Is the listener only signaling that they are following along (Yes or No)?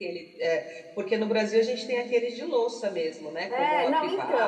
No